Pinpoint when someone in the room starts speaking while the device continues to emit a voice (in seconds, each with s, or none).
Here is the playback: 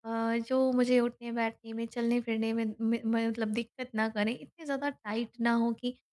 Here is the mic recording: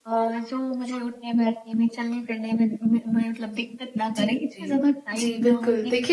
4.1 s